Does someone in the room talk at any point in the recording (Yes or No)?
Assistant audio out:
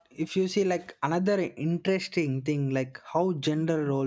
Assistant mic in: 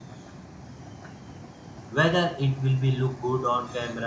Yes